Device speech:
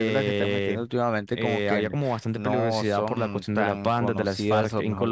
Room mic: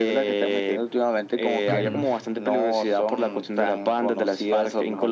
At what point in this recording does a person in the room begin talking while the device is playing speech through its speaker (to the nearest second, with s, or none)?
2 s